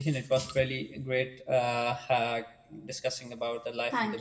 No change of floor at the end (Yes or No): No